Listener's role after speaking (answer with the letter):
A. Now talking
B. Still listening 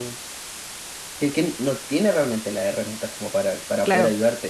B